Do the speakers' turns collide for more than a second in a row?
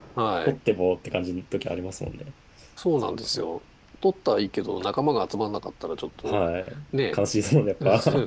No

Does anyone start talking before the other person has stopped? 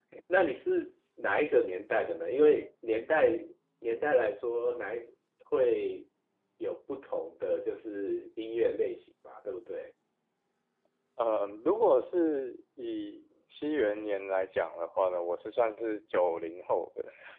No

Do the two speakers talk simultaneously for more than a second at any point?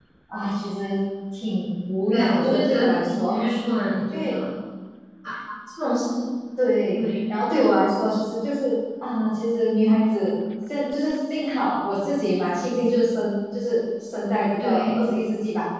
Yes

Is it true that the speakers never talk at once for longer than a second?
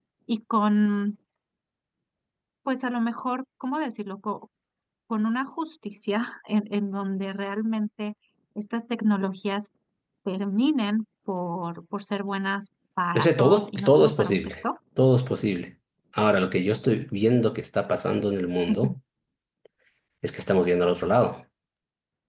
No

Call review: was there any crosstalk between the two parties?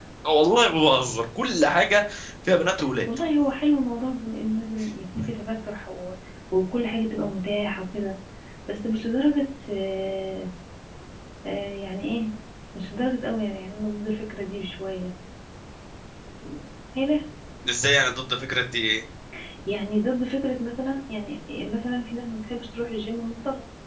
No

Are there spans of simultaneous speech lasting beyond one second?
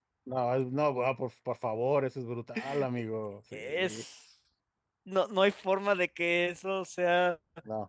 No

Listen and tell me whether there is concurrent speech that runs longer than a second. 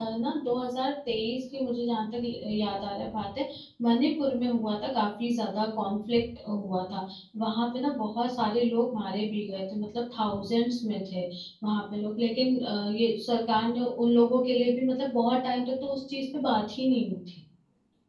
No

